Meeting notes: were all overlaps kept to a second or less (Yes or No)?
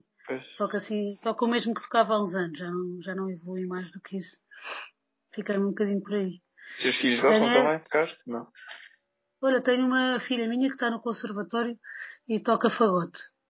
Yes